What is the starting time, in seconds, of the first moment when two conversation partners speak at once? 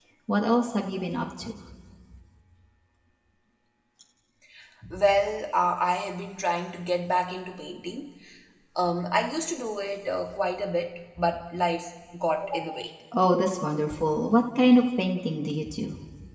none

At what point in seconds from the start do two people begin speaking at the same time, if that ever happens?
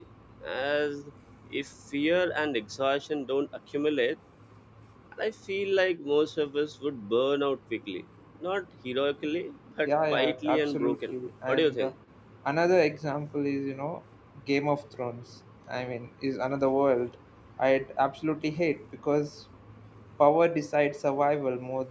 9.8 s

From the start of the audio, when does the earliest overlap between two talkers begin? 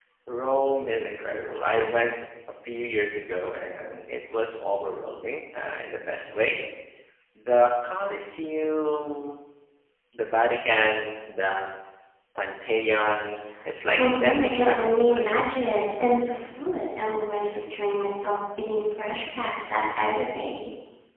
14.0 s

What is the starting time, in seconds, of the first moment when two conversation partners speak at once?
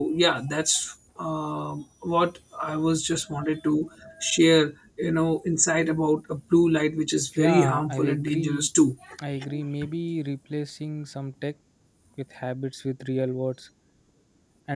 7.3 s

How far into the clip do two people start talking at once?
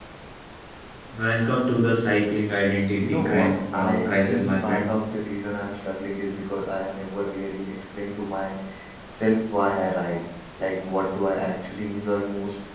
3.0 s

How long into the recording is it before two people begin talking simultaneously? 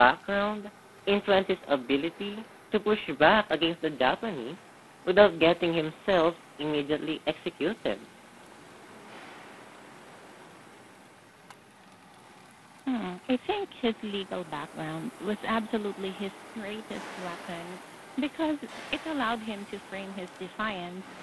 none

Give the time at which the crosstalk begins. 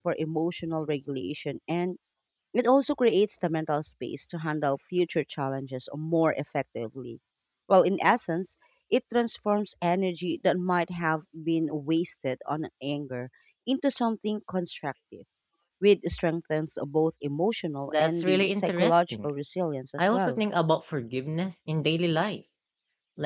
17.9 s

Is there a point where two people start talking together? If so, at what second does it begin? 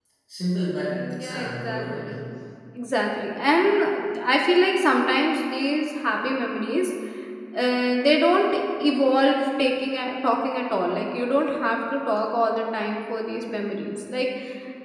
0.9 s

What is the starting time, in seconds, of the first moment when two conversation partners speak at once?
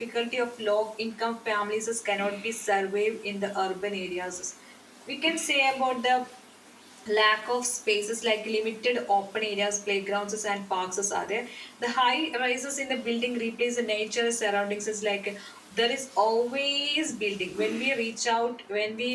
none

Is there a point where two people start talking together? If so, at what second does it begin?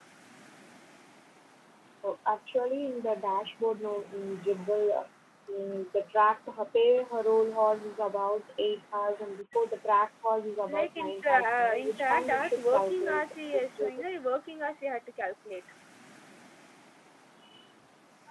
10.7 s

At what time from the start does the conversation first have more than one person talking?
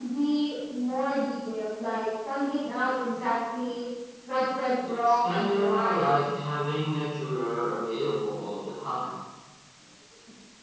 4.8 s

